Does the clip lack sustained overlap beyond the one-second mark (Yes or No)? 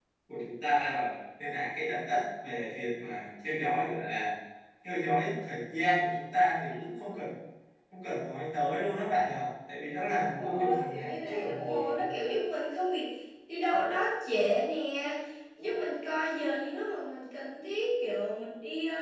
No